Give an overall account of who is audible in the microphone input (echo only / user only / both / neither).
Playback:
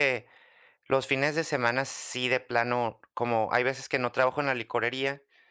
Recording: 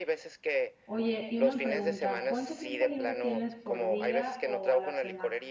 both